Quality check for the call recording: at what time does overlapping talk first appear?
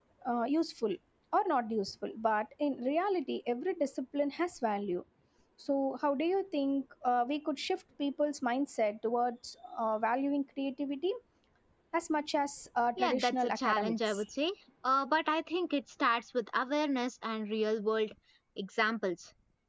13.0 s

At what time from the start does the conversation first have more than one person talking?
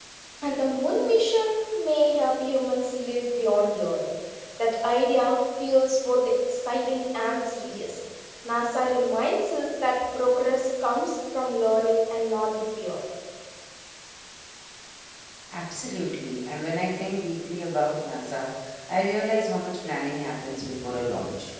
none

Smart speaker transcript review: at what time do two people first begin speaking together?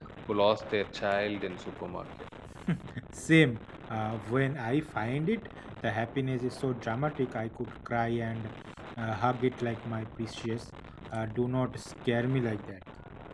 none

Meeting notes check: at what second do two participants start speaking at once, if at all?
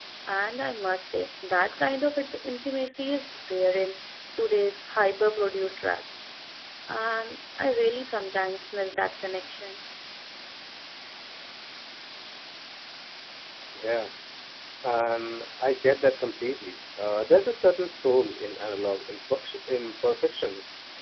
none

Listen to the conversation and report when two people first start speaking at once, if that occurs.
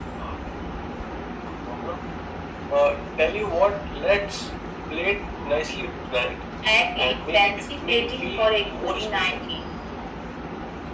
7.0 s

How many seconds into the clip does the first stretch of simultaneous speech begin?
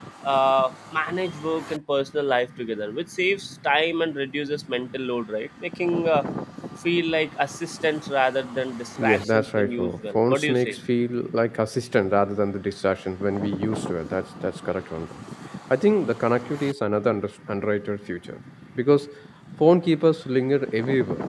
9.0 s

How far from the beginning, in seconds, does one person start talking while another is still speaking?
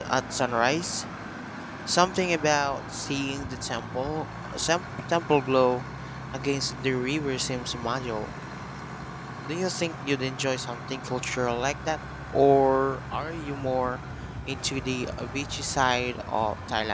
none

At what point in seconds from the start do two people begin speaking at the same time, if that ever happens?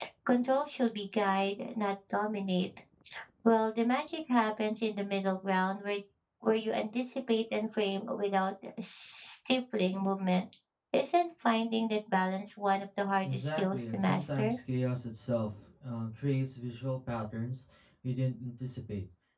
13.2 s

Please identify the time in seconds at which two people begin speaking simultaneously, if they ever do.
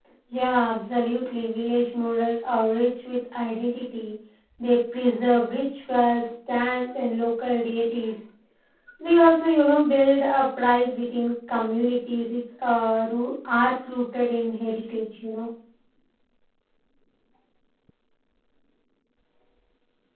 none

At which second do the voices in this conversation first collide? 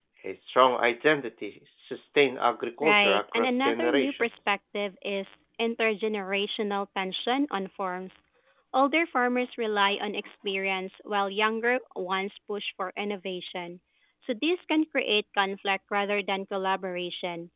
2.8 s

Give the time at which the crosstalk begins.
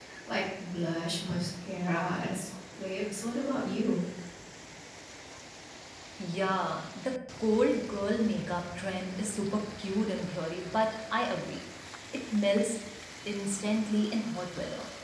none

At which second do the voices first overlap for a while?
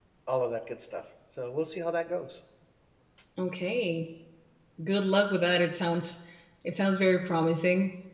none

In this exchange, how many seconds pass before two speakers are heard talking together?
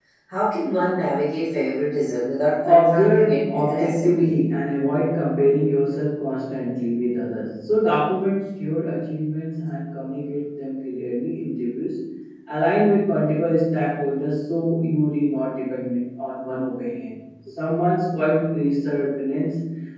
2.6 s

